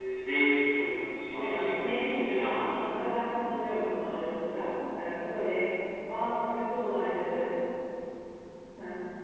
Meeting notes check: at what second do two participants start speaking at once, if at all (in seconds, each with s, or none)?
1.3 s